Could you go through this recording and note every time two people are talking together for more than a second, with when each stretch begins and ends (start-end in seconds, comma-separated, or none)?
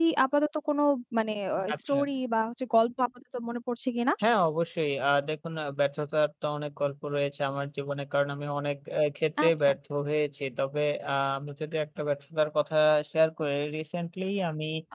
none